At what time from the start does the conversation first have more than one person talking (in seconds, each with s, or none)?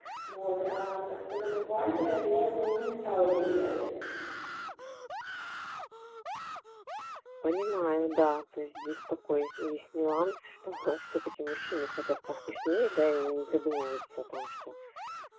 none